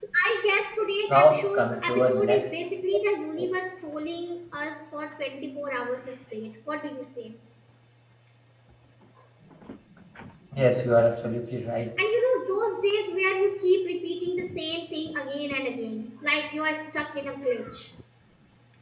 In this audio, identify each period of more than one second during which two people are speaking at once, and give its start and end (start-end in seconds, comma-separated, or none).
1.1-2.6